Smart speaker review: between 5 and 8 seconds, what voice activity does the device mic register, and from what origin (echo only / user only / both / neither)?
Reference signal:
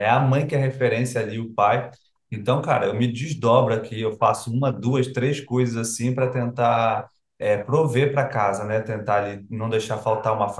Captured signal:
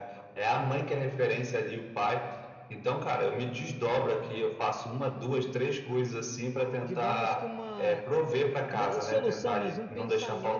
both